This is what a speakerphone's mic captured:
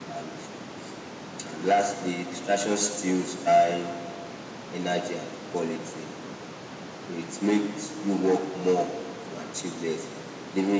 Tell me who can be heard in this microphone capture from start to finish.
echo only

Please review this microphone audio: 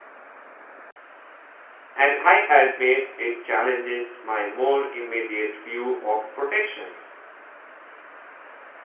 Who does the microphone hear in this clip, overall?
user only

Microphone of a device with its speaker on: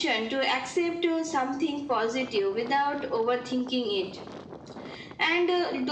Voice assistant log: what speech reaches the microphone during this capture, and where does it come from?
echo only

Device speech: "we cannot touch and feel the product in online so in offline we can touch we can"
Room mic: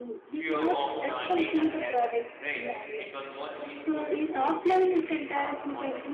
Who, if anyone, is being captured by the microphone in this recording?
both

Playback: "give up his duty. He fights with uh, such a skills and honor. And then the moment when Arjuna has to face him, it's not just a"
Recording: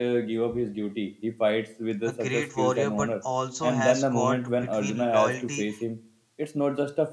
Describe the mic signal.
both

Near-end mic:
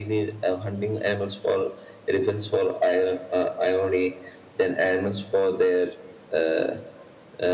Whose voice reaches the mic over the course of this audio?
echo only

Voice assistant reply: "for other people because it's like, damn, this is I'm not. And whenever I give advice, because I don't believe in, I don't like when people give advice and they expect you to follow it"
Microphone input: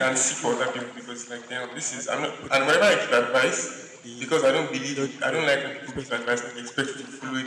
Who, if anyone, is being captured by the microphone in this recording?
both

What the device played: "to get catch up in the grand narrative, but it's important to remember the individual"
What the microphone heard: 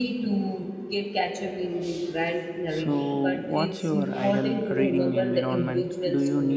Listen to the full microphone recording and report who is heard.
both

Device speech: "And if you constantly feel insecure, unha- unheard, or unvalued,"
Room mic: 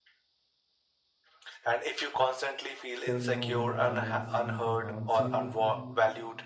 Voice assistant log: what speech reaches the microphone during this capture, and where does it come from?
both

